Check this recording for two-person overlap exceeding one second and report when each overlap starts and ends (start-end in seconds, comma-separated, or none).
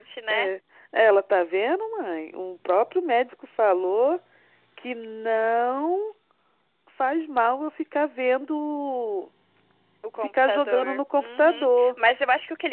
10.2-11.9